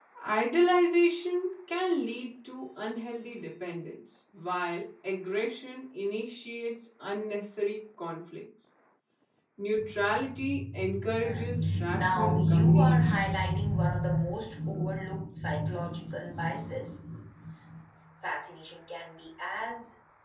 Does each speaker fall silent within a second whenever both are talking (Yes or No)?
No